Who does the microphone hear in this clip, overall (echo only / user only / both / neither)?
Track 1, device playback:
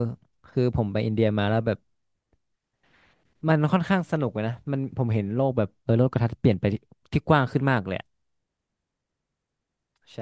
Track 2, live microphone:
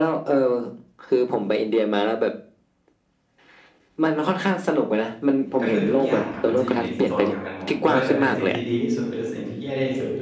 both